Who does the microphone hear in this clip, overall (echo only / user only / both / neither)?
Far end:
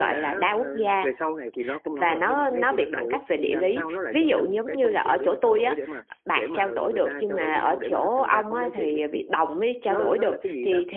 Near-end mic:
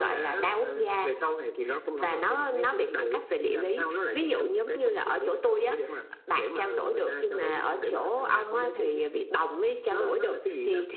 echo only